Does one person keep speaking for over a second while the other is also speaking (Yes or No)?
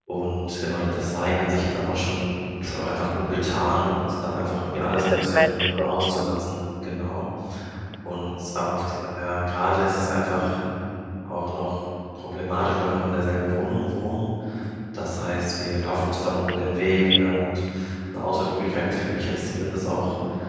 Yes